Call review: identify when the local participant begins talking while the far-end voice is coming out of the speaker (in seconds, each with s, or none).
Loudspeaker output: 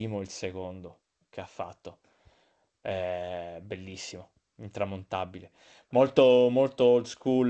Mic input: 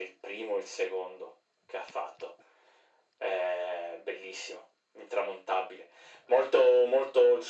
none